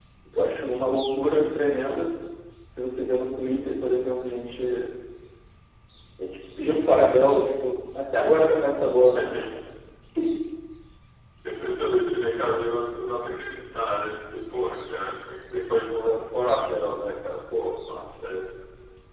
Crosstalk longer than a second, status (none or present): none